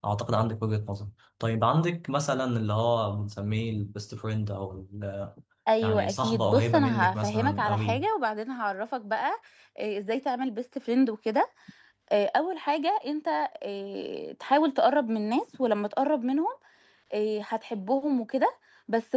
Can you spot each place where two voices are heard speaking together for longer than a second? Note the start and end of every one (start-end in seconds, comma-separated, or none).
5.8-8.1